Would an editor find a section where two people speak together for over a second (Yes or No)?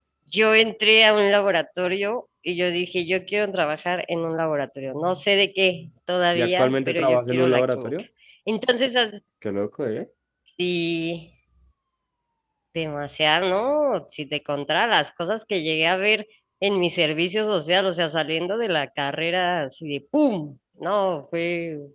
Yes